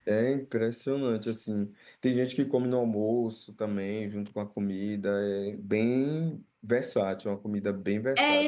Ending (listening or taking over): taking over